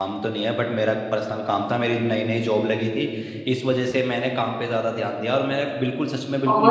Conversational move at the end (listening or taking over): taking over